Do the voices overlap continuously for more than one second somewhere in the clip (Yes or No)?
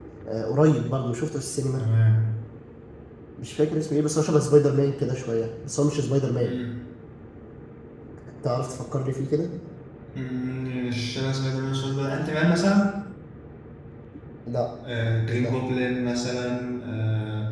No